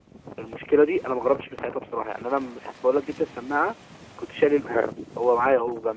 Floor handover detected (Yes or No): No